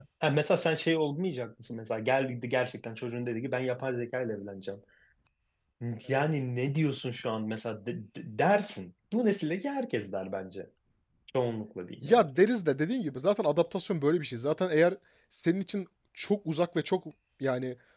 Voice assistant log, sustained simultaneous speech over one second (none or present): none